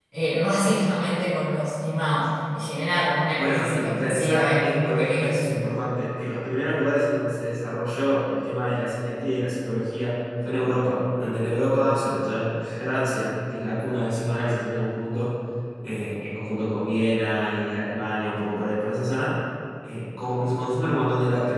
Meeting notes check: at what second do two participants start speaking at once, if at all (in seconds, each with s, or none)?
3.4 s